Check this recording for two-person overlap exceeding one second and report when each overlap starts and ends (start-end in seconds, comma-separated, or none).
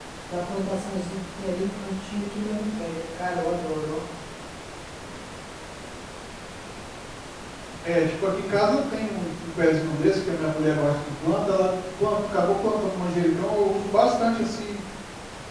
none